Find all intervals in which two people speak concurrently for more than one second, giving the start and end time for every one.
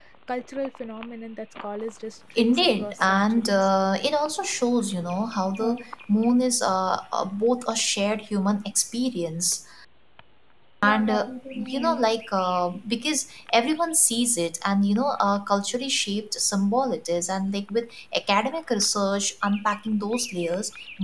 2.4-3.7

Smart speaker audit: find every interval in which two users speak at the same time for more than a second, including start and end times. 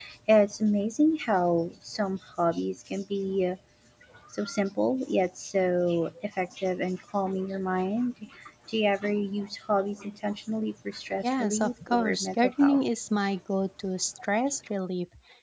11.2-12.8

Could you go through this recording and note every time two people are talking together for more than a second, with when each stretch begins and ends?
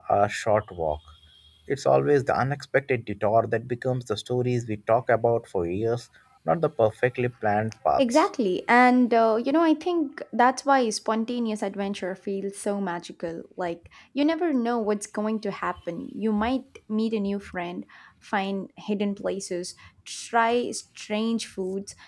none

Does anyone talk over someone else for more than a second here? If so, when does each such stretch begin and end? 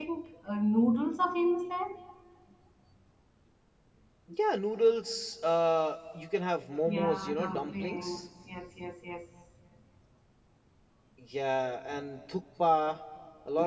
6.9-8.3

